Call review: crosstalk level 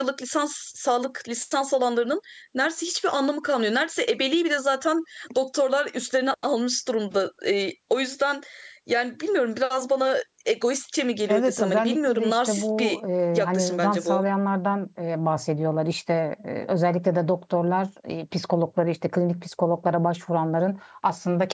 present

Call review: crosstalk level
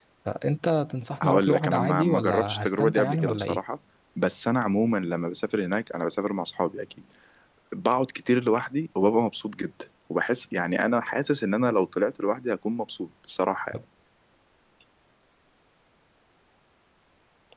present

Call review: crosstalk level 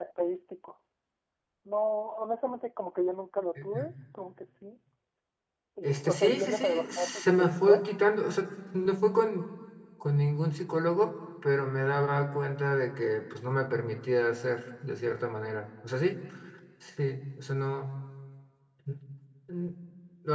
present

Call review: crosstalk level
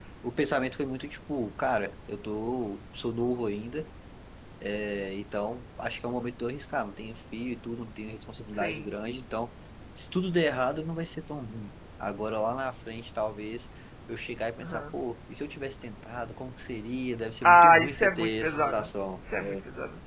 present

